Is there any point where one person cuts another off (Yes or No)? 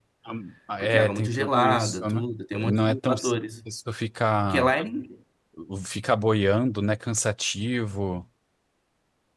Yes